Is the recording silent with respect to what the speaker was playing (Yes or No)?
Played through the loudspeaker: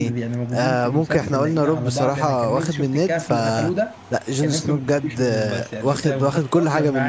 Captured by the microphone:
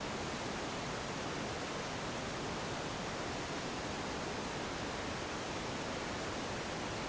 Yes